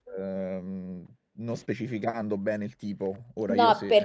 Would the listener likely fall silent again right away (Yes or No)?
No